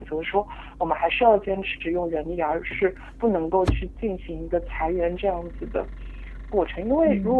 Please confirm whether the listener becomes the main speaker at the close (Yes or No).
No